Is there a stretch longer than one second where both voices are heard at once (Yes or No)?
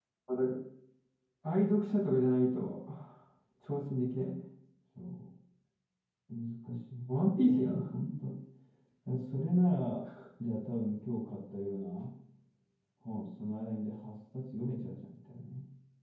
No